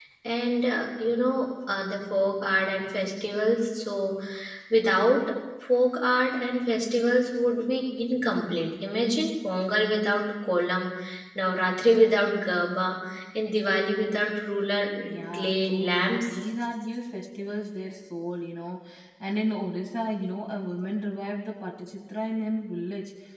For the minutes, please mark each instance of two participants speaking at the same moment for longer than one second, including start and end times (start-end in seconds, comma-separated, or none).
15.1-16.3